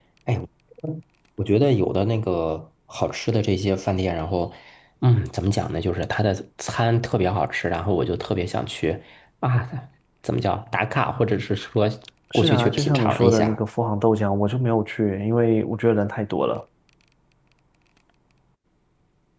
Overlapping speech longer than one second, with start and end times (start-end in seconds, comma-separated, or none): 12.3-13.6